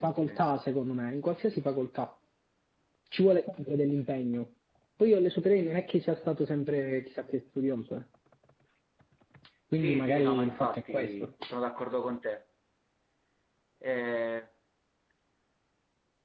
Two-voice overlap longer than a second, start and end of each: 9.7-11.3

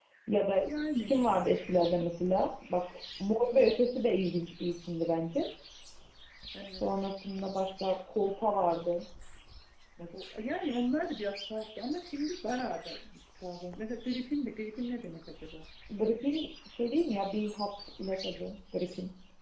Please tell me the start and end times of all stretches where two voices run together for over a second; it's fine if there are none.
none

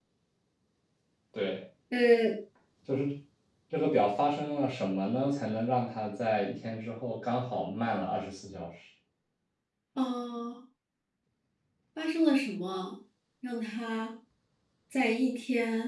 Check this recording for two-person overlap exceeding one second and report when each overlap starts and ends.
none

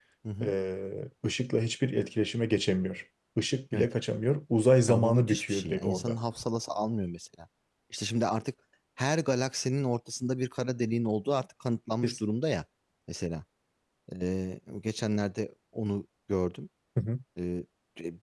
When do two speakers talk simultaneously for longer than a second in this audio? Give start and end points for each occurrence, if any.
4.9-6.2

